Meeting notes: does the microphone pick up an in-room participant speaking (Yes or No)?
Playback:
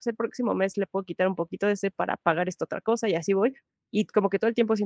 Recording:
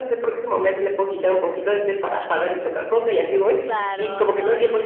Yes